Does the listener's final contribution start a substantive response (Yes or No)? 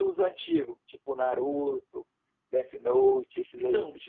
Yes